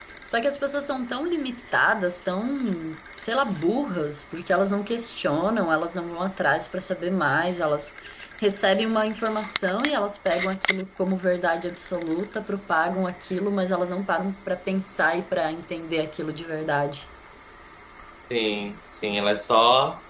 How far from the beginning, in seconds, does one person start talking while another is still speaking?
none

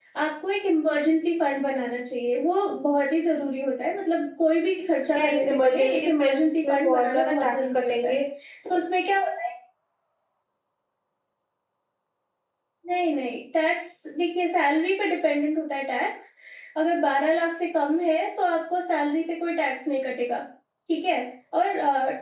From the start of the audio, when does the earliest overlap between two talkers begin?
5.2 s

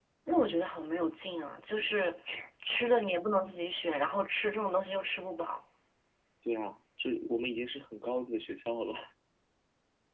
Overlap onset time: none

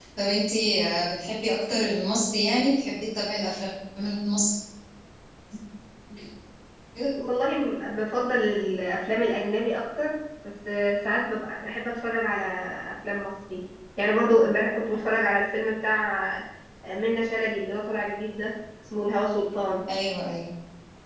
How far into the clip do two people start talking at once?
none

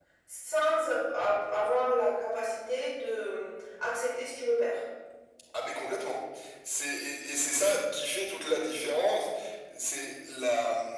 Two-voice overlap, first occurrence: none

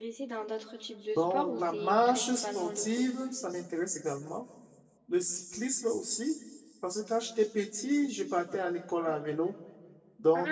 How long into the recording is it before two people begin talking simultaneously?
1.2 s

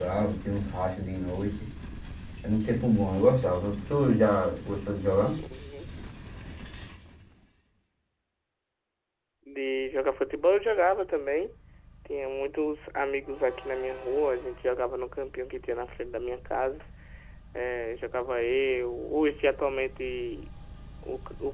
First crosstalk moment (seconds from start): none

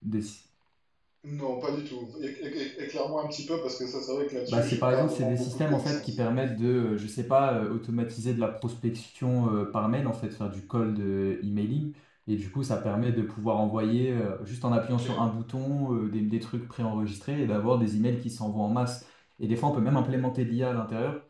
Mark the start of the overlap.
4.5 s

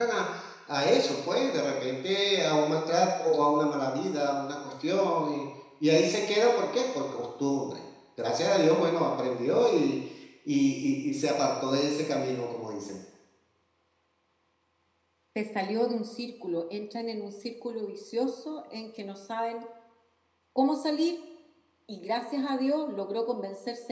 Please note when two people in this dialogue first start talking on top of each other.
none

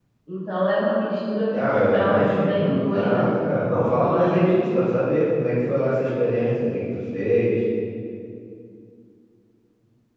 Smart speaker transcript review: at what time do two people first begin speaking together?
1.5 s

